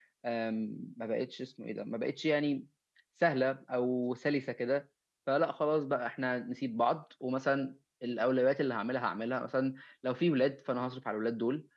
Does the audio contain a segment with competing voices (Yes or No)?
No